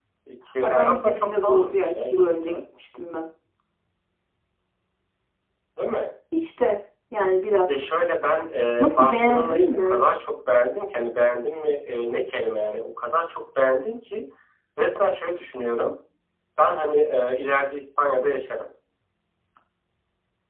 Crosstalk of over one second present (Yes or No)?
Yes